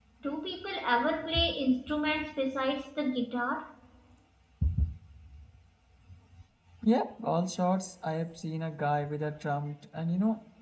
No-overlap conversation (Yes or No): Yes